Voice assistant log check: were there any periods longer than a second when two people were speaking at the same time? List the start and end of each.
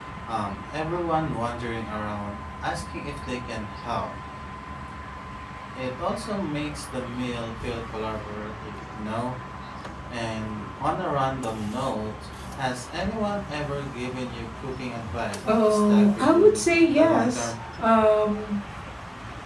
15.4-17.5

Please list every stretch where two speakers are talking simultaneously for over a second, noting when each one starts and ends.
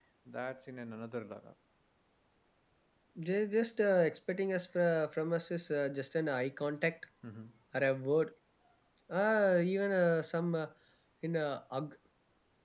none

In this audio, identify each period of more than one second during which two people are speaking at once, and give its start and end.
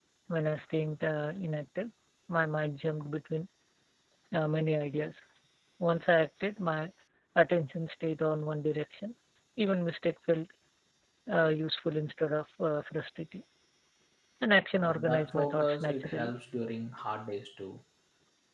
14.8-16.3

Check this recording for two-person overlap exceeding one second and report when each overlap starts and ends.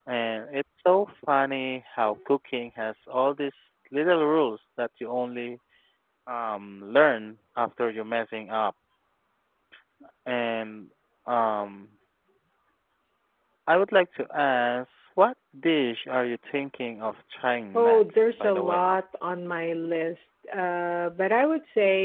17.7-18.9

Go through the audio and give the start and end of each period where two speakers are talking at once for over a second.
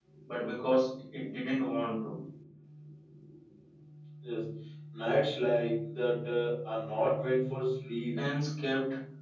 none

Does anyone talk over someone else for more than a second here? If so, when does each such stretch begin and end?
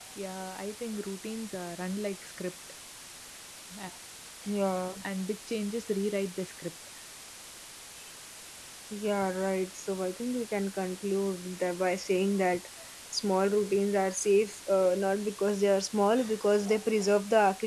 none

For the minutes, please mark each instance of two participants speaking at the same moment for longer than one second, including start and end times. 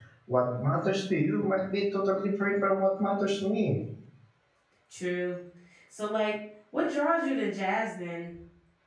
none

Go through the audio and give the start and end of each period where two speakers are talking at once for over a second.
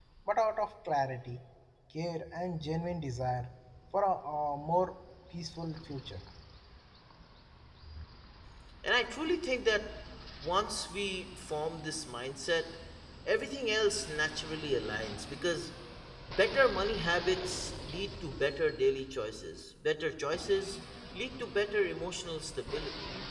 none

